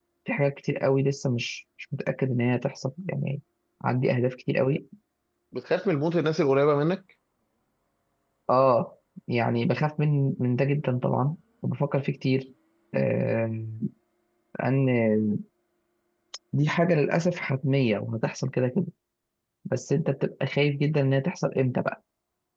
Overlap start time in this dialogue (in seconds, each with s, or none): none